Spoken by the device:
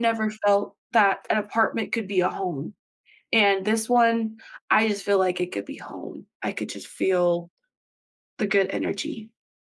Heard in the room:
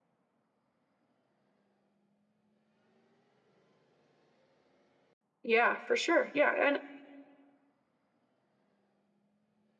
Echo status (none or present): none